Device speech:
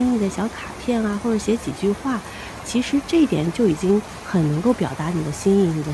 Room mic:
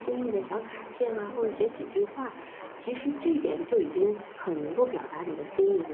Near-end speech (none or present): present